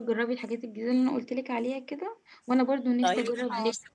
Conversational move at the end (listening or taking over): listening